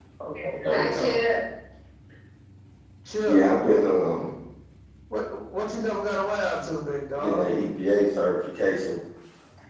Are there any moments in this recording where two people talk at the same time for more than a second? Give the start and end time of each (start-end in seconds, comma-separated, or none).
none